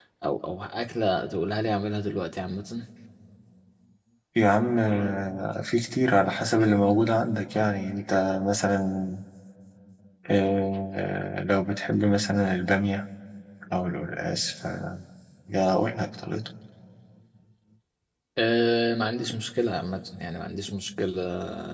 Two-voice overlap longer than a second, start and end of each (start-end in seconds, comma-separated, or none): none